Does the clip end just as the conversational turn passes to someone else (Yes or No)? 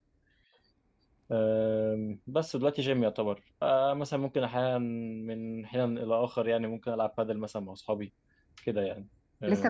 Yes